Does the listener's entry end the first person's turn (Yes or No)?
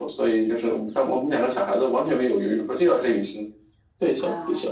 No